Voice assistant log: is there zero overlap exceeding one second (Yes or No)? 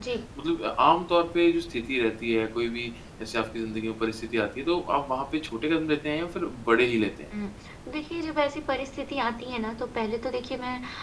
Yes